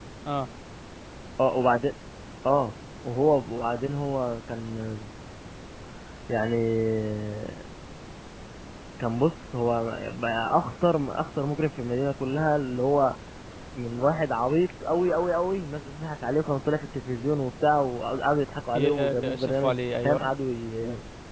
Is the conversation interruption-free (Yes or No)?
No